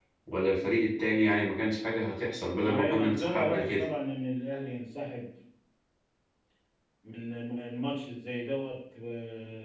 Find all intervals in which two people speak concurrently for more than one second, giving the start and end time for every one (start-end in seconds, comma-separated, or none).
2.6-3.8